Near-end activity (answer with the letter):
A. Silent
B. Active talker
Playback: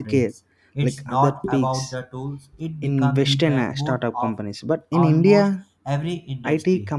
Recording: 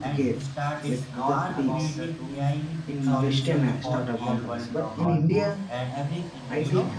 B